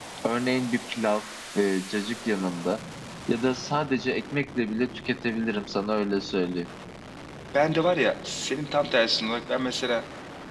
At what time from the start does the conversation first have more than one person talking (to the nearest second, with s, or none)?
none